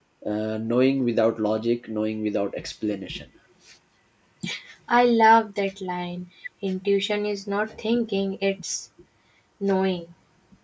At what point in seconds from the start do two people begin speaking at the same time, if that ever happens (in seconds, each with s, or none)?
none